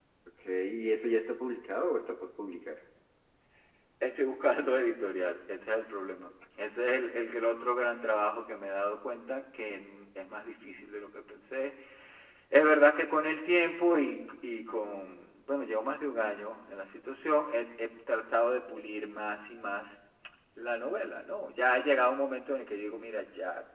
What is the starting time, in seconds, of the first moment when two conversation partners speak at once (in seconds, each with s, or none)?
none